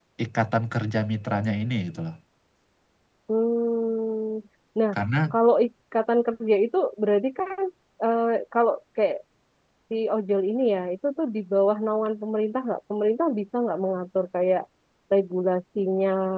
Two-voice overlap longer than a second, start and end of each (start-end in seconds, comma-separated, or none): none